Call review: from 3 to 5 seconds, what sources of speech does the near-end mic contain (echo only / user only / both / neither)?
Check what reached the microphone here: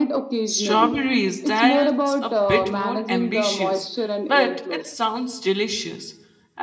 both